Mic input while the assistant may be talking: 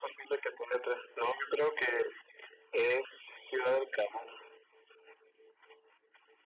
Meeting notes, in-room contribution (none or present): none